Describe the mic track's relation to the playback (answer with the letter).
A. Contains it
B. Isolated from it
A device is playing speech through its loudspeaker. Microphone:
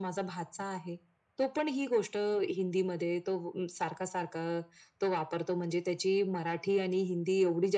A